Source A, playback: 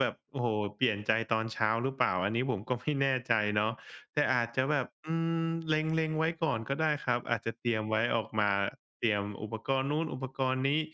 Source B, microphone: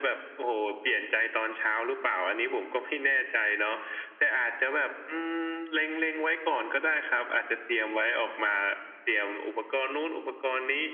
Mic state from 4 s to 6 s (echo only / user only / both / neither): echo only